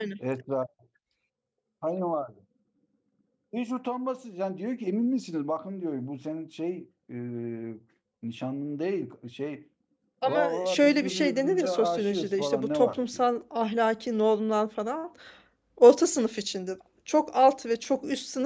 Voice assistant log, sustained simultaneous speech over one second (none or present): present